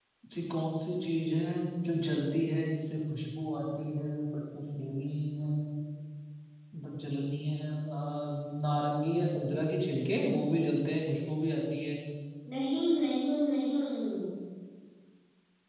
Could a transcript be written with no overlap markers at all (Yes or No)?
Yes